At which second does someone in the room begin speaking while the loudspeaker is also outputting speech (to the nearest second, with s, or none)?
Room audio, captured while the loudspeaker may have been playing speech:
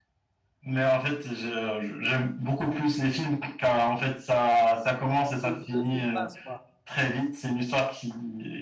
5 s